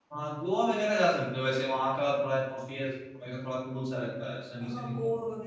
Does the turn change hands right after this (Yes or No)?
Yes